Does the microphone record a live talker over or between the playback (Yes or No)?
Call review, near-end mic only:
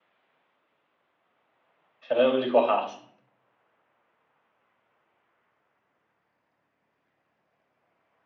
Yes